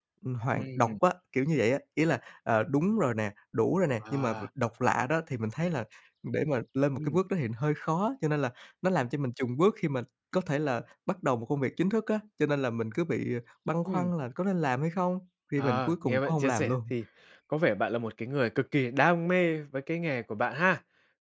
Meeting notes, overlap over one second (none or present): present